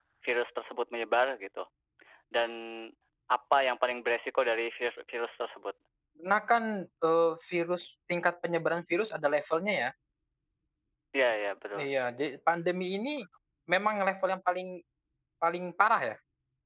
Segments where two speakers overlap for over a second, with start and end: none

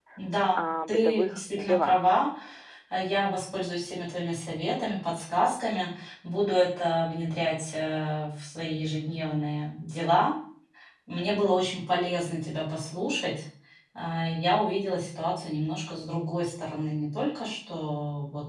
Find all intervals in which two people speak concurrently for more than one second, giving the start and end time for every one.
0.6-2.0

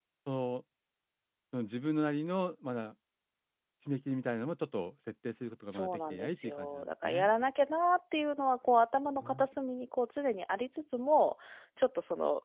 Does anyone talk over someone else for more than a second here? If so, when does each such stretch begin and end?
5.7-7.3

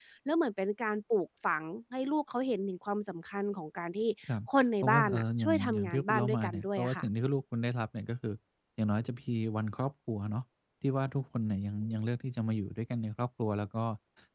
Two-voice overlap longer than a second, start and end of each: 4.8-7.0

